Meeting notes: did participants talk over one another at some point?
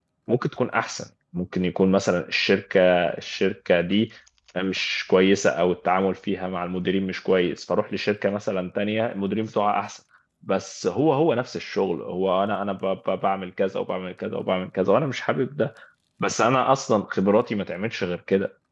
No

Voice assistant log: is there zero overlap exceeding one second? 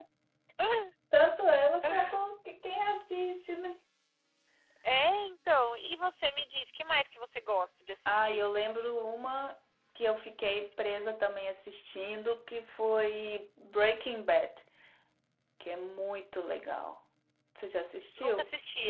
Yes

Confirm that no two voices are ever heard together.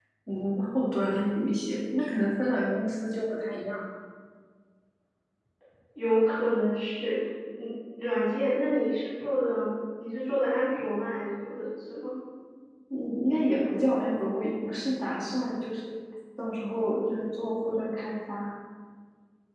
Yes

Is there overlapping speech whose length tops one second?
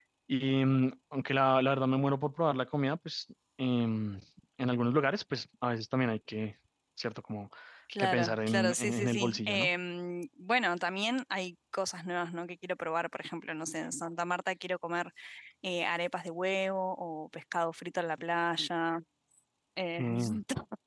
Yes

